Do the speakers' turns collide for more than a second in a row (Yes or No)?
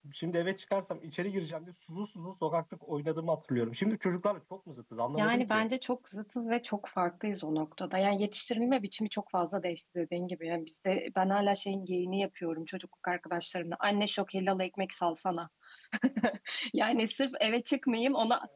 No